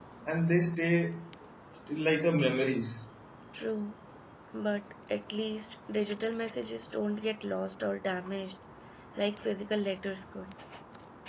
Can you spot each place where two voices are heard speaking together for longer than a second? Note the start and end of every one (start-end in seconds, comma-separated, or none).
none